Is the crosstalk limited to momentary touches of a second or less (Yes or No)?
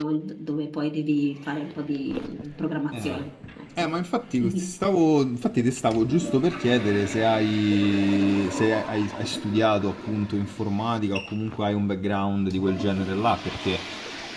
Yes